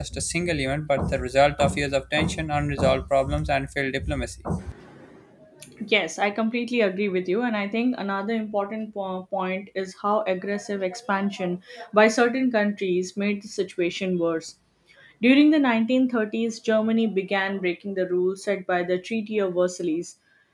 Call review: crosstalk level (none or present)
none